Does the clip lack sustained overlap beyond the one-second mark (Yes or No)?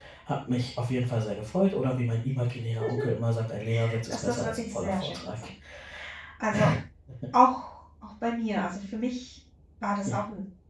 No